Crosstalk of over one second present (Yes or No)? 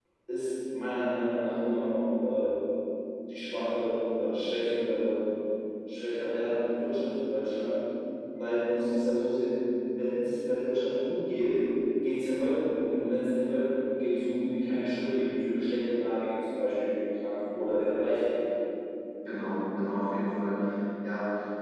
No